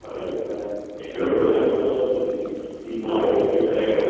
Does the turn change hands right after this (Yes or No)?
No